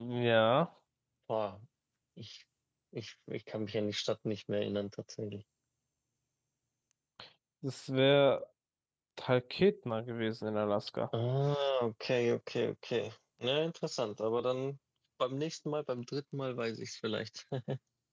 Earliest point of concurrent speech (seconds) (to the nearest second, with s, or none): none